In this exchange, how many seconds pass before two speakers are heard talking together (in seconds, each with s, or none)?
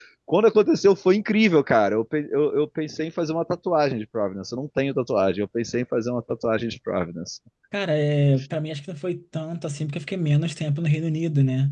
none